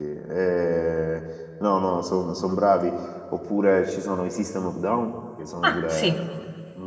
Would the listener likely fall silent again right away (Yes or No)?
Yes